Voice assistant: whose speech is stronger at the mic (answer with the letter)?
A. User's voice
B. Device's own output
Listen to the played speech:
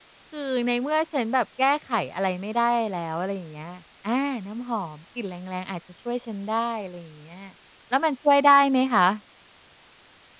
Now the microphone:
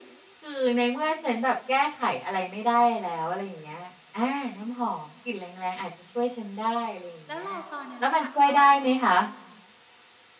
B